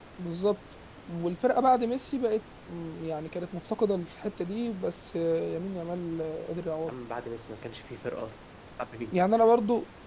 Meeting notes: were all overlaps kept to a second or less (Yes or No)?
Yes